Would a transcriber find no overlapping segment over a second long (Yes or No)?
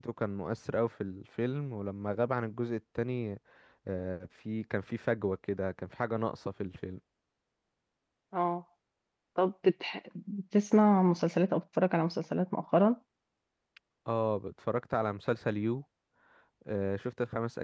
Yes